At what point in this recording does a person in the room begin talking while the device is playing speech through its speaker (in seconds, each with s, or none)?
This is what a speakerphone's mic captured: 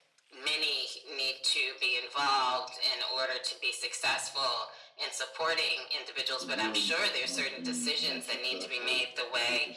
6.5 s